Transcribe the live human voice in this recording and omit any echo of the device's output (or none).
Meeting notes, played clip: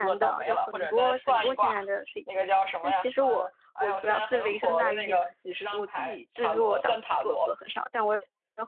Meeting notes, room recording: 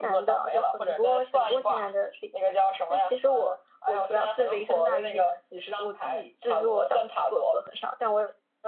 none